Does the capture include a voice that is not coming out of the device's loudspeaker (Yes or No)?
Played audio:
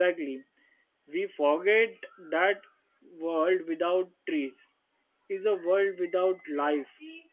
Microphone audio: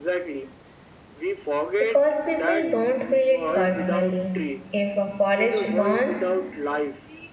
Yes